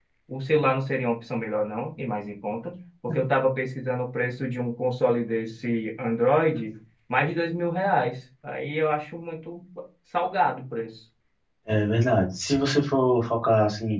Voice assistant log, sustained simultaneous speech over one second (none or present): none